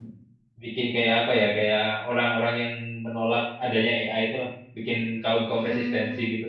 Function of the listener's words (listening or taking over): taking over